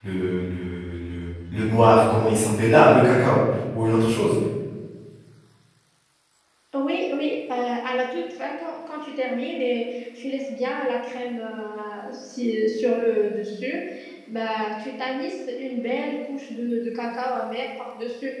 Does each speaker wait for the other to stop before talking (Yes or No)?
Yes